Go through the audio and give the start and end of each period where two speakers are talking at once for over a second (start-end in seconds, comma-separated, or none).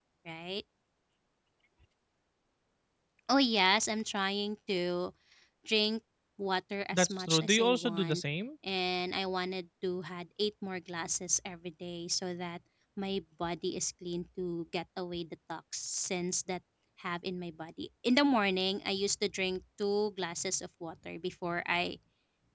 6.9-8.2